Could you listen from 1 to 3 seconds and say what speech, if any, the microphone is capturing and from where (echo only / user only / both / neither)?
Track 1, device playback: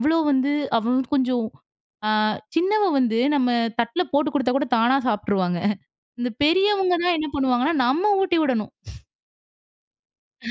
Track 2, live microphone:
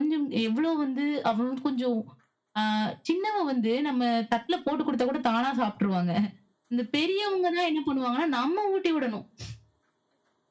echo only